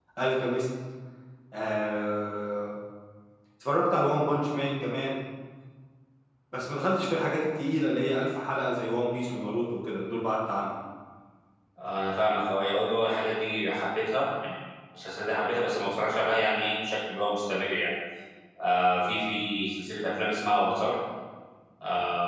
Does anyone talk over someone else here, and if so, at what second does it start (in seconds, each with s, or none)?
none